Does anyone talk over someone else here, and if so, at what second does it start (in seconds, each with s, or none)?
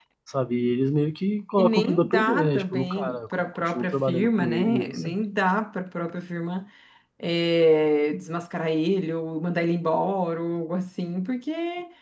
1.6 s